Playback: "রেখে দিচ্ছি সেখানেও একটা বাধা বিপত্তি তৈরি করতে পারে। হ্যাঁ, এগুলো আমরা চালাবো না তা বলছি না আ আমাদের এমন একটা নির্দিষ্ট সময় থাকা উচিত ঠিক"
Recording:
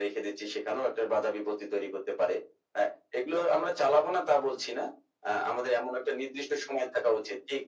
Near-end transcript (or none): none